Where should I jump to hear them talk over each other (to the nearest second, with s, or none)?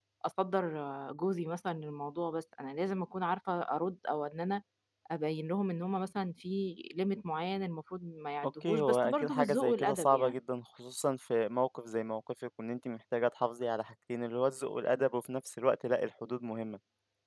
8 s